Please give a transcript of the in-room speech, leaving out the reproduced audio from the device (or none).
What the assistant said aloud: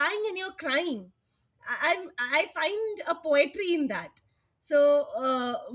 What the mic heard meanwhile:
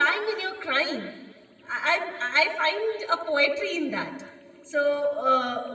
none